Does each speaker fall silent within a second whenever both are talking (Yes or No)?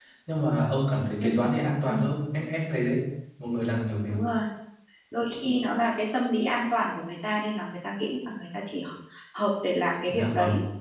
Yes